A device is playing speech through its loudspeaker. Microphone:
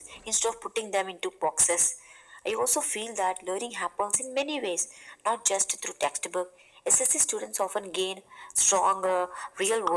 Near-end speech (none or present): none